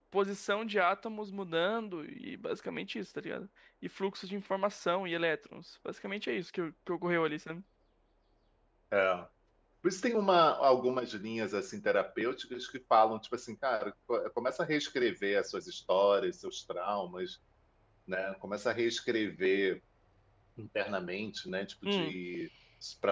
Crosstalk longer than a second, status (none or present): none